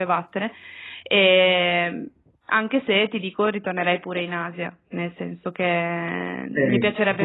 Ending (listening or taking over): taking over